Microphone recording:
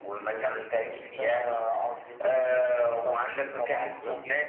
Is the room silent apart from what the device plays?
Yes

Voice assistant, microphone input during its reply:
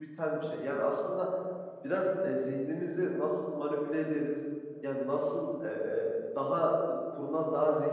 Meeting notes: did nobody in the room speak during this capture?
No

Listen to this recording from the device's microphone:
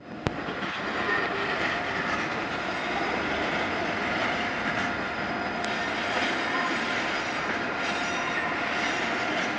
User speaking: No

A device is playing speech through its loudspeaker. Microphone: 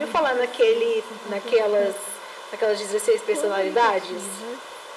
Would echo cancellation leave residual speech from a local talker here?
Yes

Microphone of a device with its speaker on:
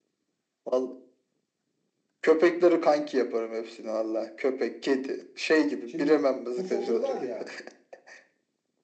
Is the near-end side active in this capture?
Yes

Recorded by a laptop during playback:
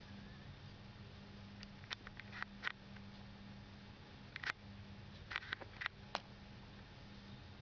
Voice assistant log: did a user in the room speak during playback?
No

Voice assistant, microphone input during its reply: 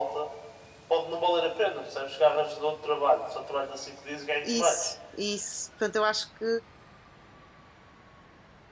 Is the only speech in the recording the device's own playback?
No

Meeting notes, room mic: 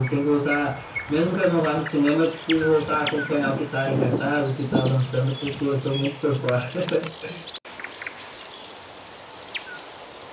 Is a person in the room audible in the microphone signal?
No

